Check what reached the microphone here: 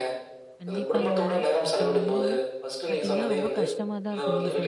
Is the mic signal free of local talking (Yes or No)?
No